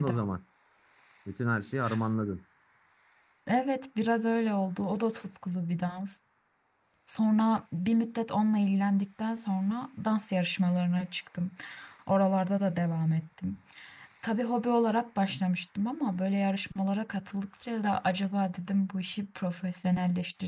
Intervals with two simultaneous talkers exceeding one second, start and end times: none

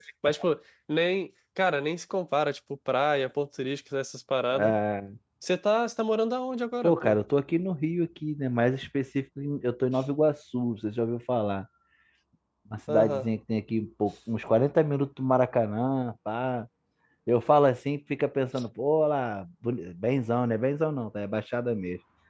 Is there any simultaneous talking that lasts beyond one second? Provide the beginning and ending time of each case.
none

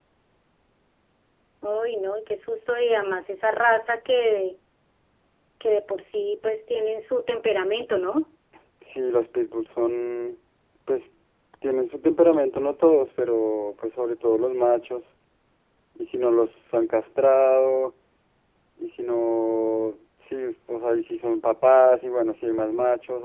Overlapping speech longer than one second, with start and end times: none

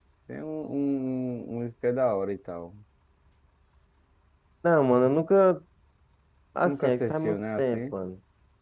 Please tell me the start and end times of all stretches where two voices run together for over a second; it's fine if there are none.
6.6-7.9

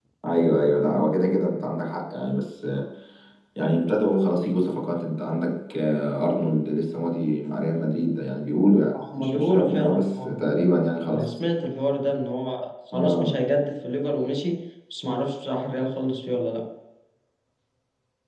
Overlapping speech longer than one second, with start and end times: 9.2-10.4

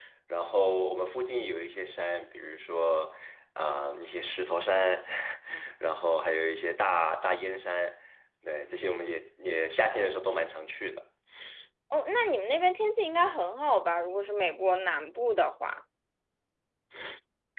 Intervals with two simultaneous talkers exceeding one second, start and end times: none

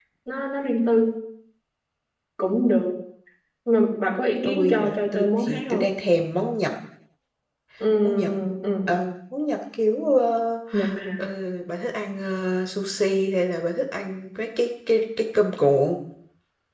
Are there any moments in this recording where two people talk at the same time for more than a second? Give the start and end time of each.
4.4-6.0

